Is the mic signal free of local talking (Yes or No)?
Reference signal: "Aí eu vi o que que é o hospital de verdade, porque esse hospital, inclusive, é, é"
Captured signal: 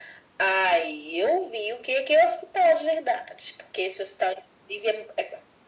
Yes